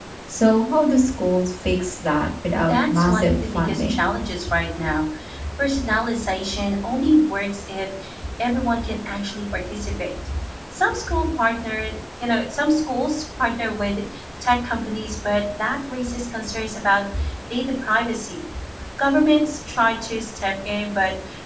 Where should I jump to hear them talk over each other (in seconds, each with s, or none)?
2.6 s